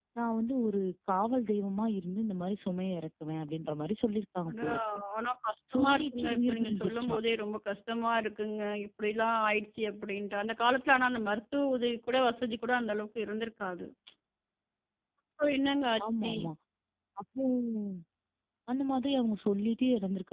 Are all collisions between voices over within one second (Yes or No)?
No